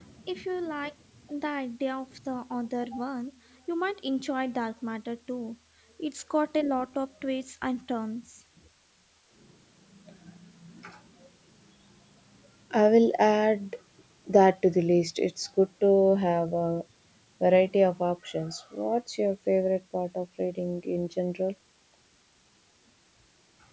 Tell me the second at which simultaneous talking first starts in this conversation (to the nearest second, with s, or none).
none